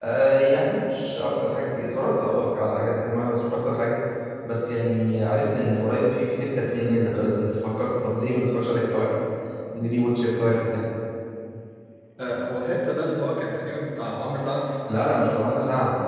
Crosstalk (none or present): none